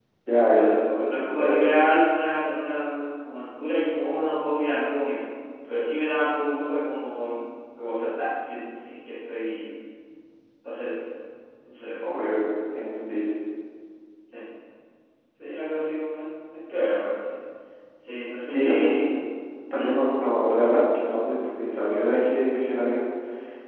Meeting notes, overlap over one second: present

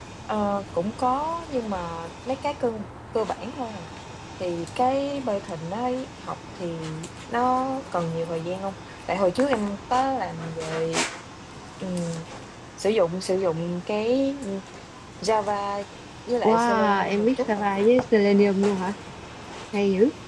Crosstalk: present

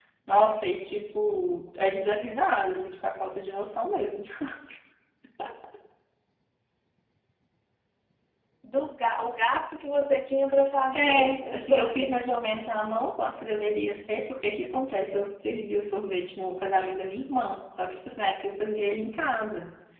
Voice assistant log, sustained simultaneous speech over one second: present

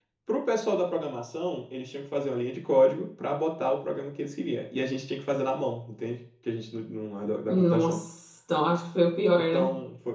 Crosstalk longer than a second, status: none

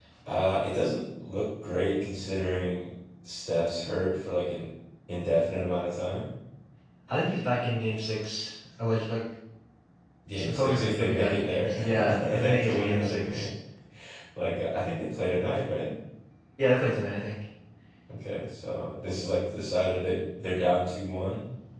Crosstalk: present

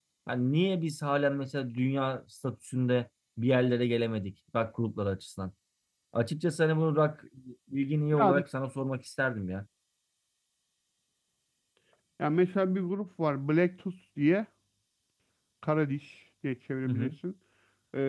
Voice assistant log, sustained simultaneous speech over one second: none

